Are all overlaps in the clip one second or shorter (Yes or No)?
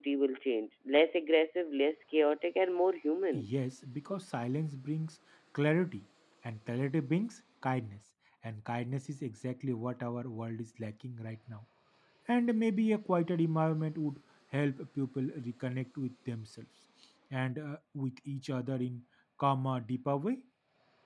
Yes